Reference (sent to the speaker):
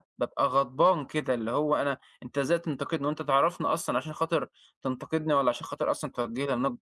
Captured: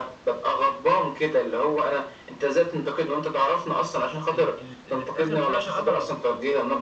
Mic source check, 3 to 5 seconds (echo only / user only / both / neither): both